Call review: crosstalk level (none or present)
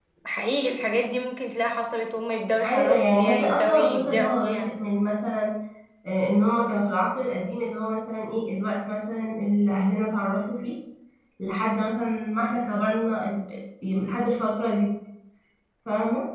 present